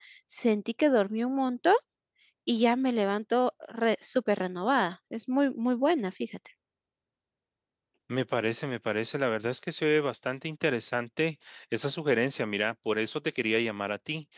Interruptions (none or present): none